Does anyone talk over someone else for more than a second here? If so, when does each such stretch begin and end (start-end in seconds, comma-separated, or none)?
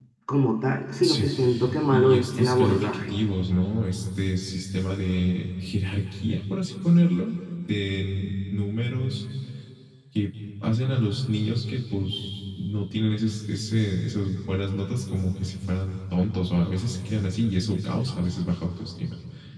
1.9-3.1